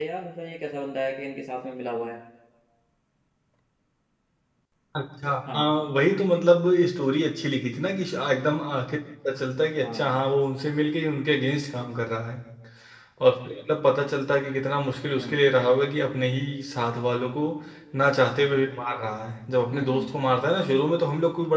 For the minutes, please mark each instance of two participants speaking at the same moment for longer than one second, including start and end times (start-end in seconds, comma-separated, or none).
none